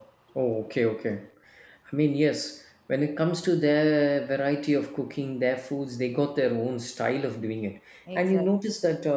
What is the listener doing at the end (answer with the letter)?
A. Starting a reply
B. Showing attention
B